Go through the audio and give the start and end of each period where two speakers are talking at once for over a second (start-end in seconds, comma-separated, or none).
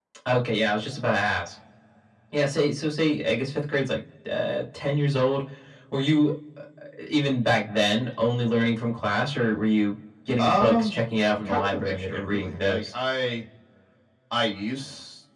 11.5-12.8